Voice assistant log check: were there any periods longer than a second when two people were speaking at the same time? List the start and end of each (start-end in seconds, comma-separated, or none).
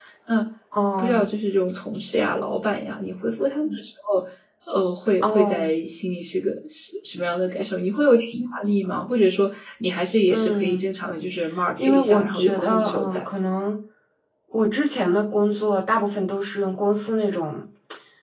11.8-13.2